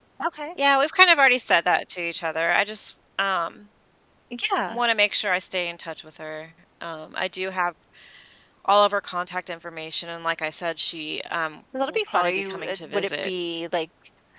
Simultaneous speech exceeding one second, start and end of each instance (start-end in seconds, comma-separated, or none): 11.9-13.3